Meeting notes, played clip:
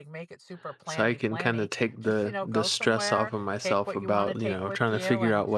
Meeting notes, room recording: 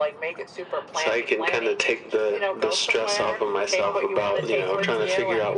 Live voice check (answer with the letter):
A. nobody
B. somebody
B